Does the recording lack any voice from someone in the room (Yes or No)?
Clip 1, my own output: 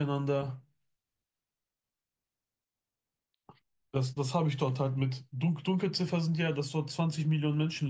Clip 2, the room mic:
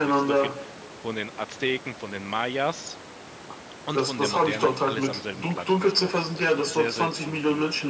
No